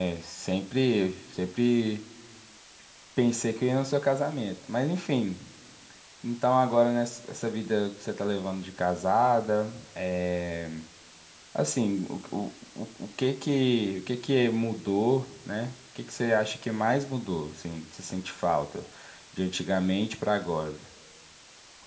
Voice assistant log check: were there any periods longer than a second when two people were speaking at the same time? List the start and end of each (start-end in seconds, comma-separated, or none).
none